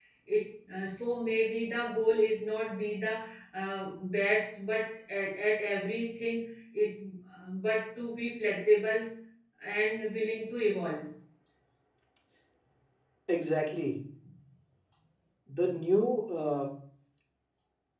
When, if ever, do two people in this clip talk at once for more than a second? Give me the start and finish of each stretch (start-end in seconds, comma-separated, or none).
none